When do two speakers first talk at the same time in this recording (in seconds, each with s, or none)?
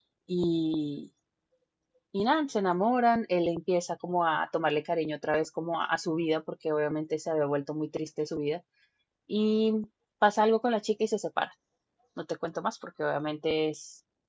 none